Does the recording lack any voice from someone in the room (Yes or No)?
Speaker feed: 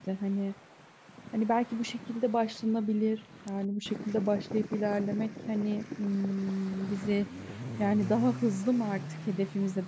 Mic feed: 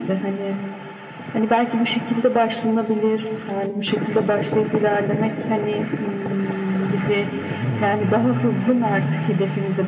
Yes